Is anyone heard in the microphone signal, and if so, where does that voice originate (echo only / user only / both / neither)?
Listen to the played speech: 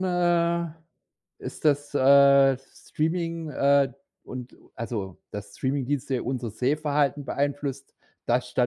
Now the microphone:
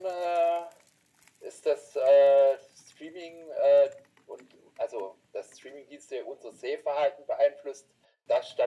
echo only